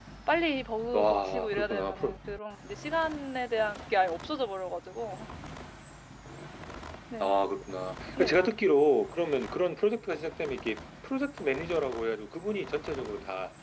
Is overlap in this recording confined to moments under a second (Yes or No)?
No